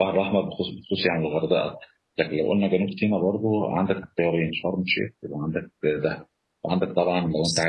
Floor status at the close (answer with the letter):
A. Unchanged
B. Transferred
A